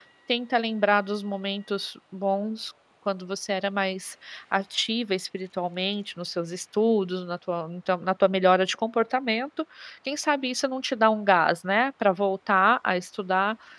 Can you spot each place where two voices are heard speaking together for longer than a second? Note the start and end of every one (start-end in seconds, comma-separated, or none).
none